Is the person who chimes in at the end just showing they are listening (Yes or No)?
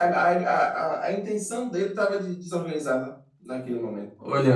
No